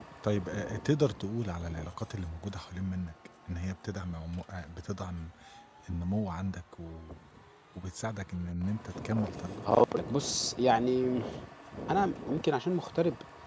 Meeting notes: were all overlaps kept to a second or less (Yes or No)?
Yes